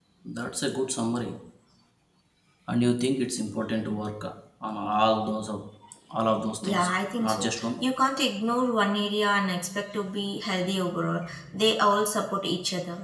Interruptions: present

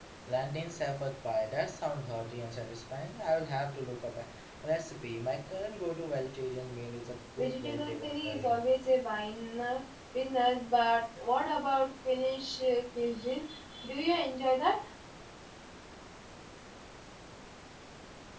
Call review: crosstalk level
present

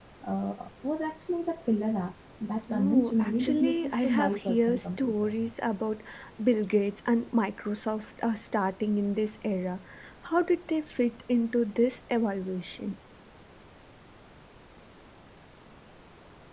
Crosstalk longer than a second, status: present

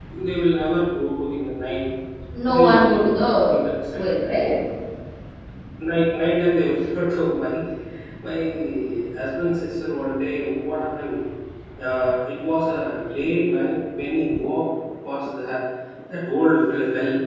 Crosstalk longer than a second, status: present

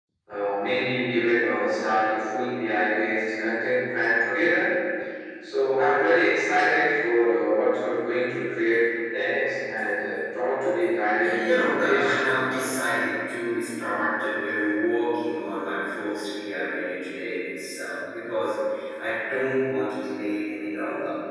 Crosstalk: present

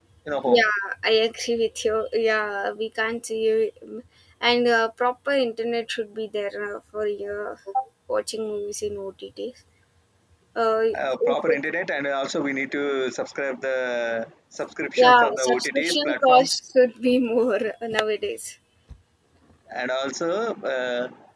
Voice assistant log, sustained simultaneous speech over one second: present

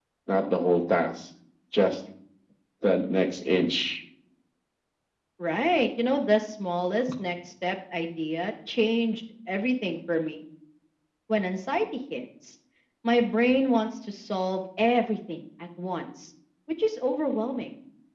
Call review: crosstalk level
none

